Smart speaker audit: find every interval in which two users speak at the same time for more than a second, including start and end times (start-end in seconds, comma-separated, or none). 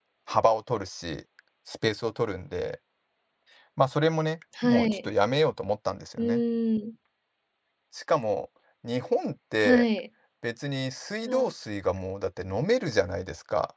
none